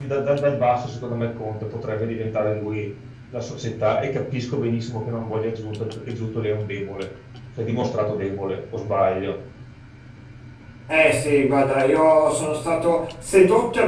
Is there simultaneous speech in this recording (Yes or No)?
No